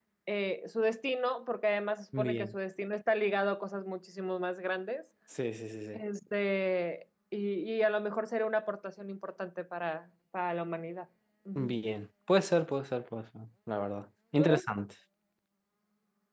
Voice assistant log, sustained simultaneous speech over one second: none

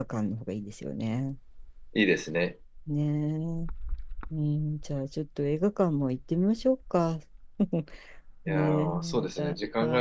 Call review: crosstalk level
present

